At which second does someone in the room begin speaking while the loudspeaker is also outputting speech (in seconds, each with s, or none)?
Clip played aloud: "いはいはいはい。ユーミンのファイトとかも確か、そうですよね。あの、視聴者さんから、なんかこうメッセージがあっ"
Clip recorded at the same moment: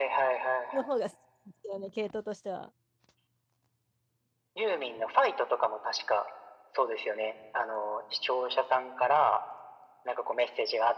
0.7 s